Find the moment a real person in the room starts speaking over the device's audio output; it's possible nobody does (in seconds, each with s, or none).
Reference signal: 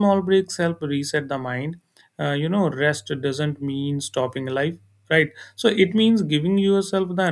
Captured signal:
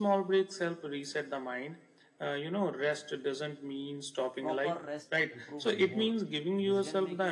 4.4 s